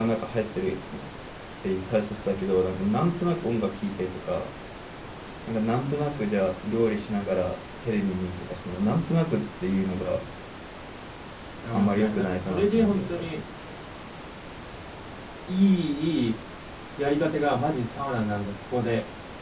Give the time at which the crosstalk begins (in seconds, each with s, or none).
11.7 s